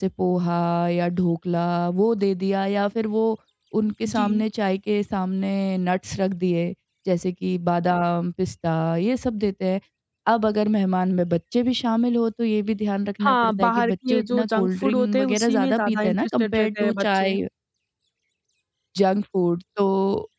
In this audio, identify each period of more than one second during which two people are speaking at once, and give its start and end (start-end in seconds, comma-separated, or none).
13.2-17.4